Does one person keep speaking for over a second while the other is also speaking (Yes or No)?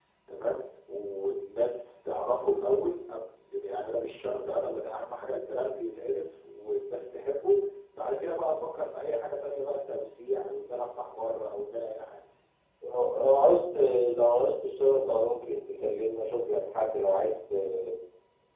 No